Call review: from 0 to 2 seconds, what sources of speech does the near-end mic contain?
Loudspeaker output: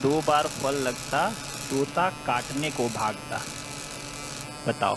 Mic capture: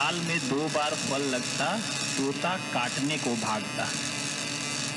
echo only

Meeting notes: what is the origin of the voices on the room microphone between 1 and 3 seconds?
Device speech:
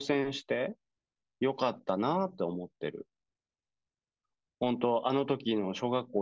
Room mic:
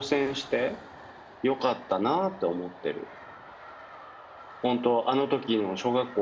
echo only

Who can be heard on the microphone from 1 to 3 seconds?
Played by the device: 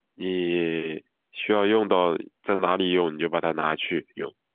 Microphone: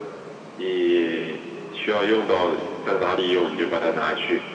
echo only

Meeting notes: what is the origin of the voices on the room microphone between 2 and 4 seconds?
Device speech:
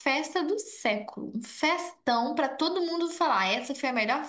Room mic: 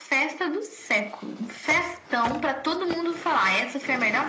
echo only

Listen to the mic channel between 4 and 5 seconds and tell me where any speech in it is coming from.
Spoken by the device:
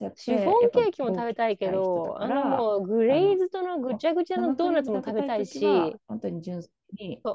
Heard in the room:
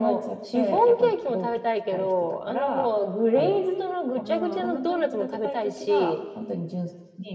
both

